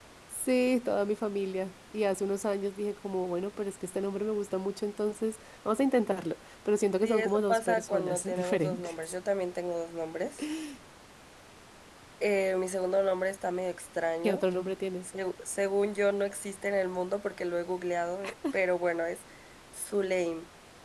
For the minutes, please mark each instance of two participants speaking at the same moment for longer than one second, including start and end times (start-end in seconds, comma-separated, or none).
7.0-9.1